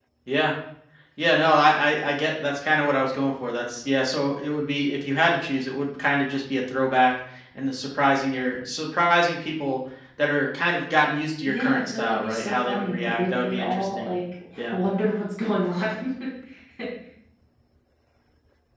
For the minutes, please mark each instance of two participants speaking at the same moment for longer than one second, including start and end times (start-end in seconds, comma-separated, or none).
11.4-14.1